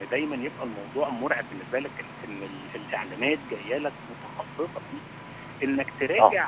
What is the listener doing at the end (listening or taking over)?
listening